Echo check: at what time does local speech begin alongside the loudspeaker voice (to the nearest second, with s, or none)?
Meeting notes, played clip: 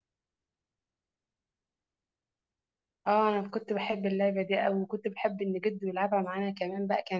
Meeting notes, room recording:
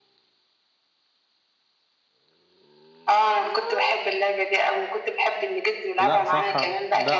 6 s